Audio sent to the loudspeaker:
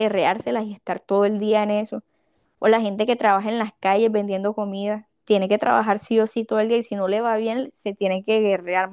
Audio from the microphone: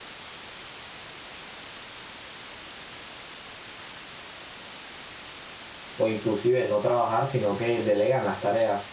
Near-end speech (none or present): present